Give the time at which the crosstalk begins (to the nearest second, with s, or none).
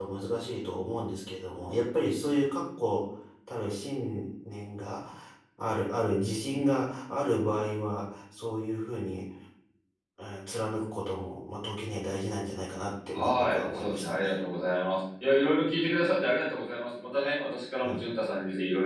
13 s